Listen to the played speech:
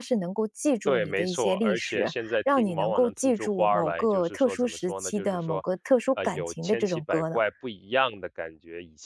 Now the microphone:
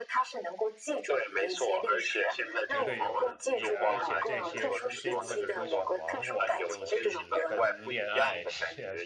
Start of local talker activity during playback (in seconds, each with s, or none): 2.7 s